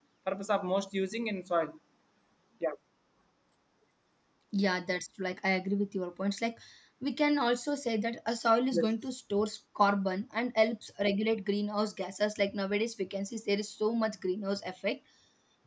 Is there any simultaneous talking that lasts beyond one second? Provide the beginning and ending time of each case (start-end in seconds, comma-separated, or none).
none